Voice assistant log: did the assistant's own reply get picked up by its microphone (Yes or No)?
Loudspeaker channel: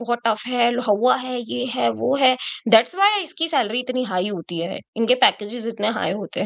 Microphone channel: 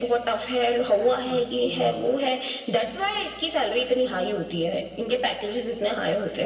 Yes